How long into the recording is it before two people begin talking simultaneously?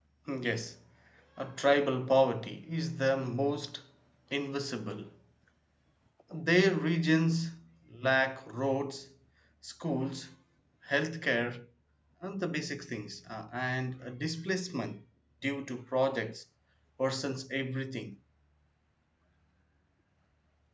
none

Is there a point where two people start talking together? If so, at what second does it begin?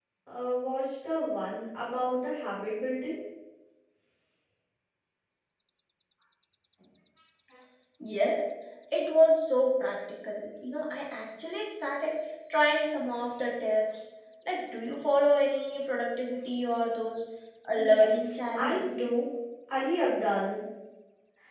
17.8 s

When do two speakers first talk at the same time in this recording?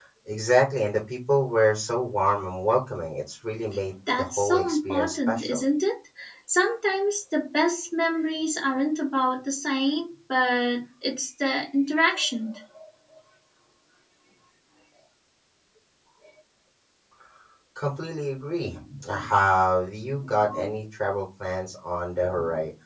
4.2 s

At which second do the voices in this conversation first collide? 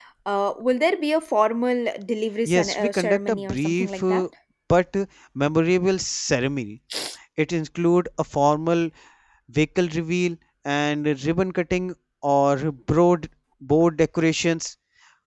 2.4 s

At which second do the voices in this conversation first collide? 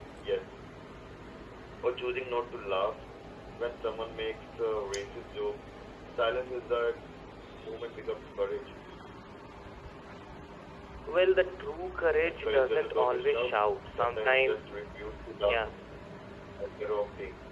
12.2 s

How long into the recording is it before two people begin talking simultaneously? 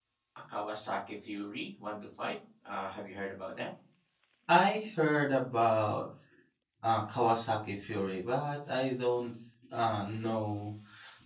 none

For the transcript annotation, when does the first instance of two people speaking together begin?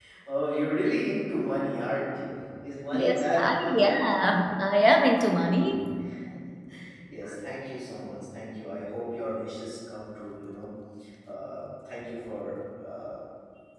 2.9 s

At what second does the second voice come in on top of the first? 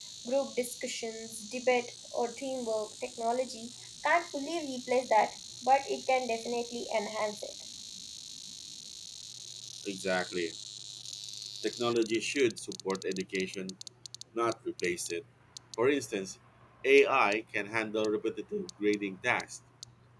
none

